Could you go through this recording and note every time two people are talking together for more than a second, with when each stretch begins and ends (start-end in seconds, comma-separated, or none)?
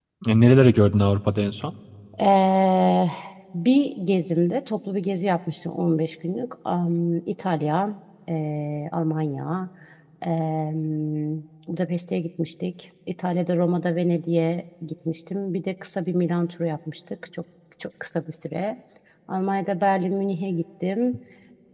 none